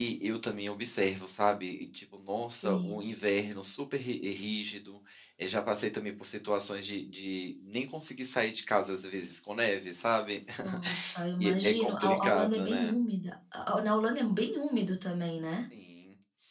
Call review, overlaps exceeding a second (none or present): present